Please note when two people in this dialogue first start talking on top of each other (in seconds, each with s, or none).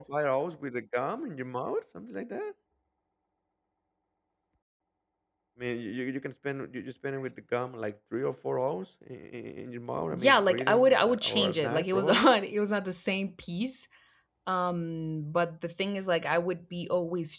10.1 s